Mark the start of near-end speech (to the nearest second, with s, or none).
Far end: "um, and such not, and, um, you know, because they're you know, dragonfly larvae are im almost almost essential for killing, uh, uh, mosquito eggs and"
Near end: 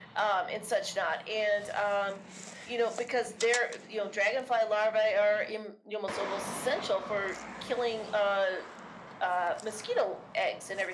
none